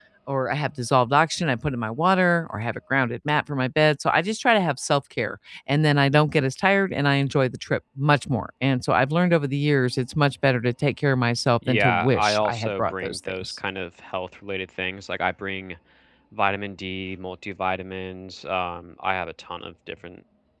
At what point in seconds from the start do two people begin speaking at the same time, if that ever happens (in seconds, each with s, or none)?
11.6 s